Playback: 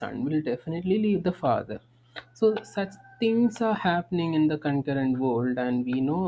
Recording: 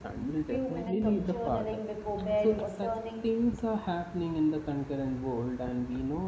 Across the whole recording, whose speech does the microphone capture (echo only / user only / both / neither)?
both